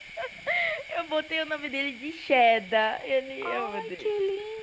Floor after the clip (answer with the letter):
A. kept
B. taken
B